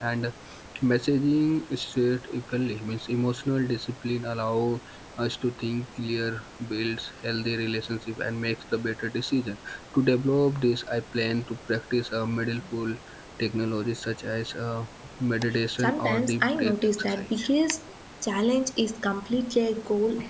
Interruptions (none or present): present